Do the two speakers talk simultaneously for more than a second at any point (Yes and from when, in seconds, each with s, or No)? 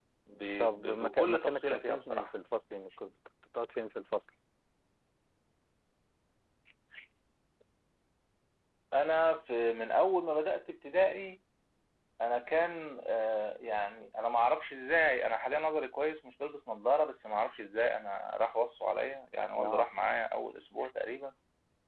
Yes, from 0.8 s